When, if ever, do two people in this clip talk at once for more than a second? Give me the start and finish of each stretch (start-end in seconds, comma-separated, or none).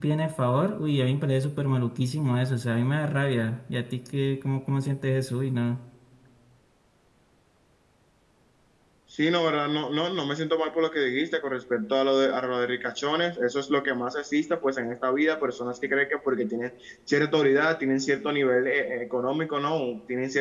none